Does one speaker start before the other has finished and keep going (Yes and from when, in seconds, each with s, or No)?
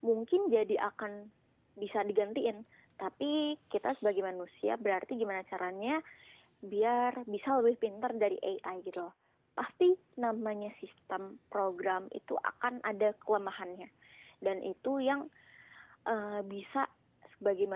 No